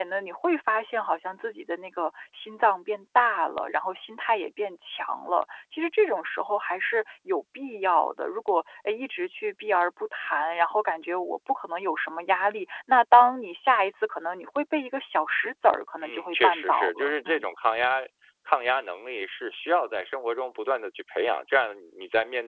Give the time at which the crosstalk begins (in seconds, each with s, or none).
16.0 s